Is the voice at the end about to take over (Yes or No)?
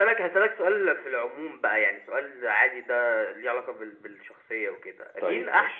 No